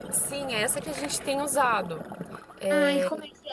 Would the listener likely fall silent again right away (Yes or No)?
No